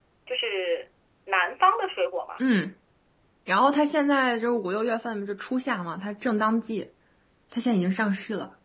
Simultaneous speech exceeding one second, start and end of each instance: none

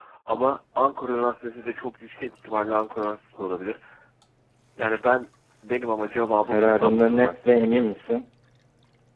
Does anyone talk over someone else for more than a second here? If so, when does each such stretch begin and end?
6.5-7.7

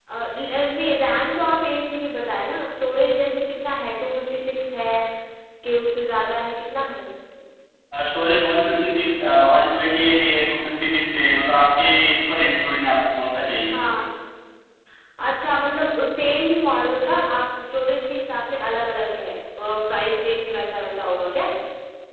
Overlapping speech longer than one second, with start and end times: none

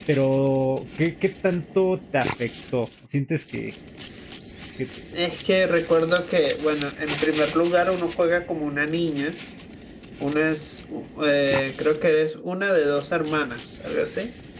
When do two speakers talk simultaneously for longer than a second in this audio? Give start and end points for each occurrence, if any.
none

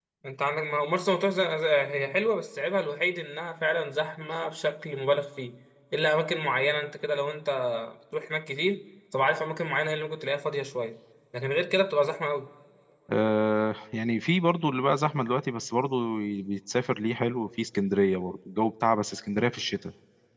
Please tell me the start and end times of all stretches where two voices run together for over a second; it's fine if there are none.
none

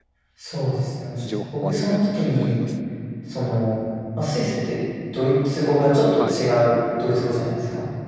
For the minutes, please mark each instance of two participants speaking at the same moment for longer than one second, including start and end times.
1.2-2.6

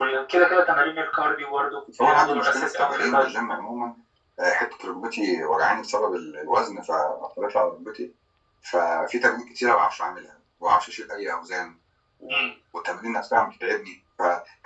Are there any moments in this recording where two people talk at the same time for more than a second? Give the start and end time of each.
2.0-3.3

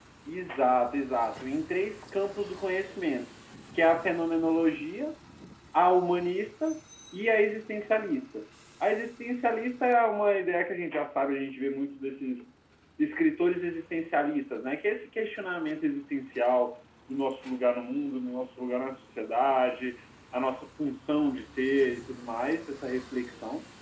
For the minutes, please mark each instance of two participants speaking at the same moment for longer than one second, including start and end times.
none

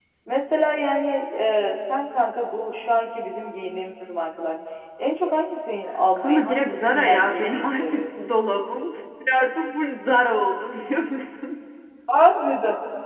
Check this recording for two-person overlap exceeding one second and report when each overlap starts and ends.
6.2-8.1

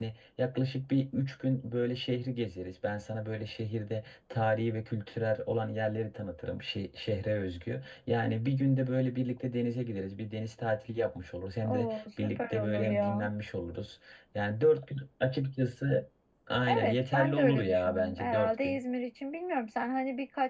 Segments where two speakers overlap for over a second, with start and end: 11.6-13.3, 16.7-18.8

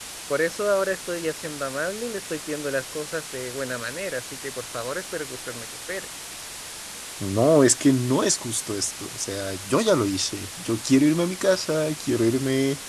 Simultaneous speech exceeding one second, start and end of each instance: none

